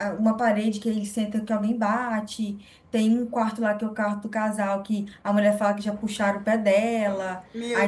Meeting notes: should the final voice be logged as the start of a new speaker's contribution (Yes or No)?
Yes